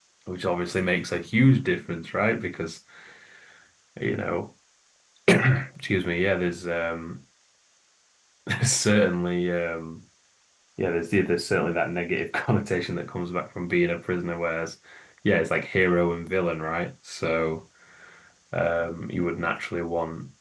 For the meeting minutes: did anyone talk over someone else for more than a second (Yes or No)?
No